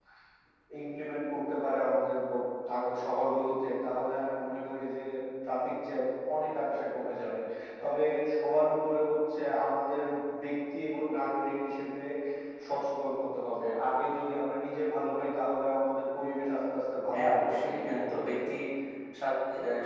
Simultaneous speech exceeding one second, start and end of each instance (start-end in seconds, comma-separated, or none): 17.1-18.5